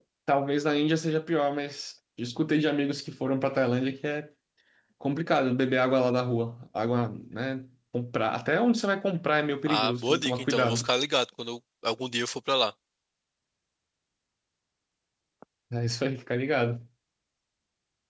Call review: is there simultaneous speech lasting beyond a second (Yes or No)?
Yes